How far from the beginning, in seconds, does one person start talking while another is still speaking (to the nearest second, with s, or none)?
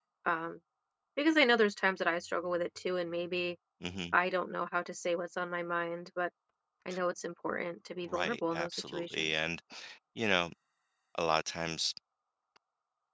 8 s